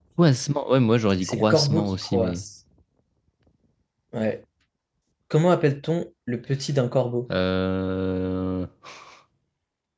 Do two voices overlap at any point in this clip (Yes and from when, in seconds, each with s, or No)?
Yes, from 1.2 s